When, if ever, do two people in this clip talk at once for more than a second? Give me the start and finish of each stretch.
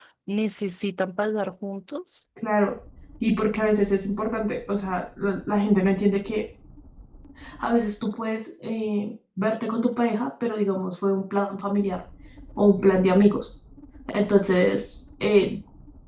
none

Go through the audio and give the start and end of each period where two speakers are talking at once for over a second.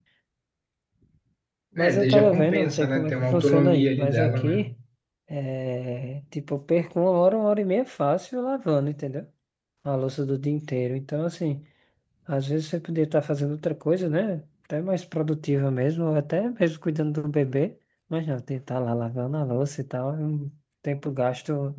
1.8-4.7

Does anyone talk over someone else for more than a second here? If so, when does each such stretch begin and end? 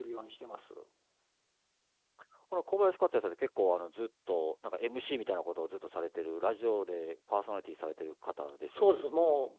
none

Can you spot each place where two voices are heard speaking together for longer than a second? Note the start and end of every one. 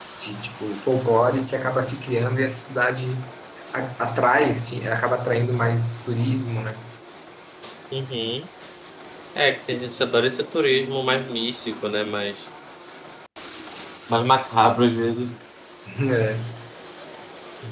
none

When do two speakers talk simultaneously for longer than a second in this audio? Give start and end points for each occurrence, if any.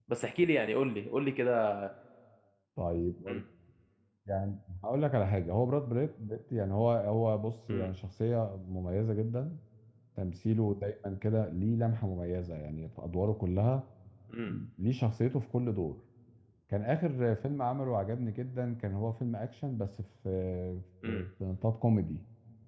none

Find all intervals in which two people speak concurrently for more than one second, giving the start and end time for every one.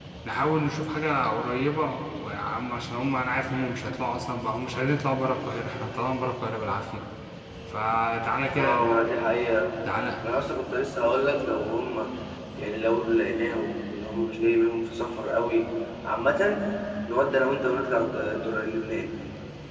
none

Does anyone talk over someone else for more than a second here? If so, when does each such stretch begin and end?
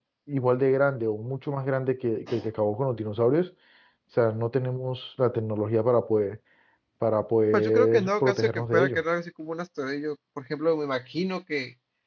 7.5-9.0

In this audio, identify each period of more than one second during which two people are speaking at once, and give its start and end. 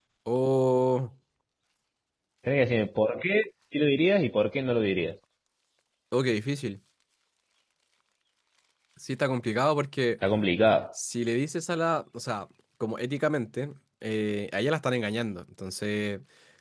none

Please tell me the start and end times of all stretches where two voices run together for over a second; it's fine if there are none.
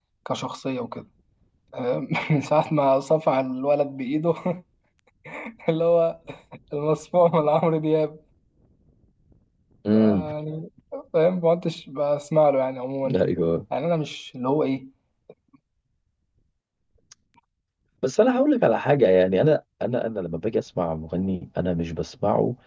none

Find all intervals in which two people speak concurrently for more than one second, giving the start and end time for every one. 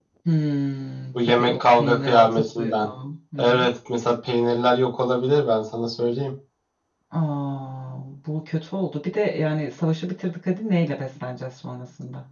1.1-2.9

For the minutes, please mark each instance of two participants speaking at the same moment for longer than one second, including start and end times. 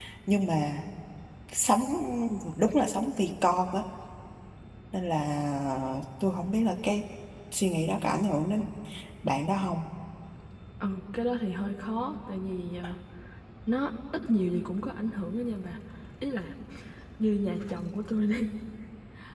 none

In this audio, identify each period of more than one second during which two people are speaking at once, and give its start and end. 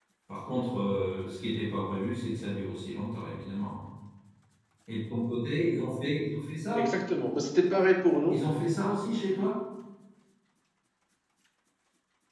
none

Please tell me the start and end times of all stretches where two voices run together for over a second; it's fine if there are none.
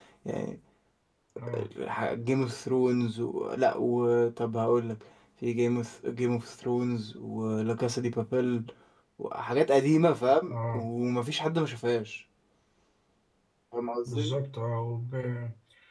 none

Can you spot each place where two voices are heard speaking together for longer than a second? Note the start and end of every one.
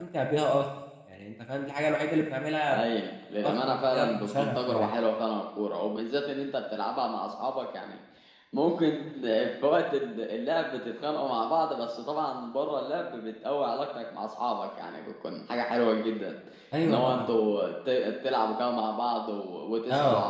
3.4-4.9

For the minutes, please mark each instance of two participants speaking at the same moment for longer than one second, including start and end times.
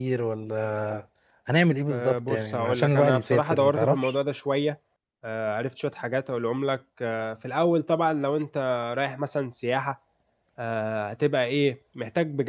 1.9-4.1

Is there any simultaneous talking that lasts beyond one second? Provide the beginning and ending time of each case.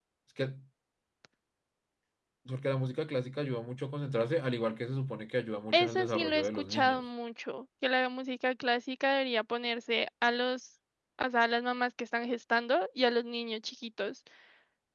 5.7-7.0

